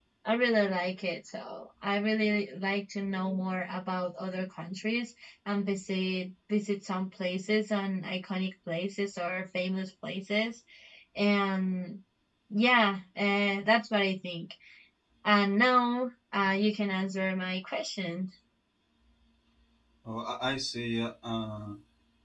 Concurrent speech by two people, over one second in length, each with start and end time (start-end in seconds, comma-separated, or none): none